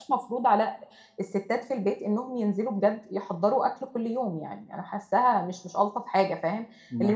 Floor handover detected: No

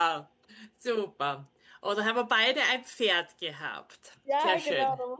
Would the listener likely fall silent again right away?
No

